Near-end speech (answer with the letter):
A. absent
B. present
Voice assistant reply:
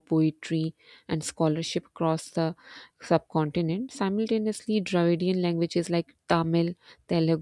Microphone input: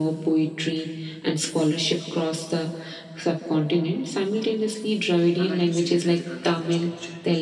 B